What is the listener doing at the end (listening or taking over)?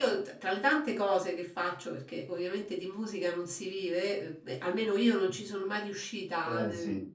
listening